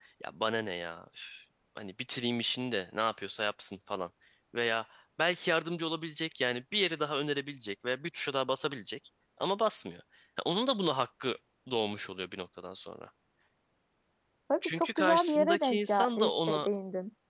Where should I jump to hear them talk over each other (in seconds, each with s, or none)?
14.6 s